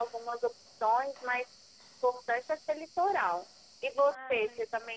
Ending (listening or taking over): listening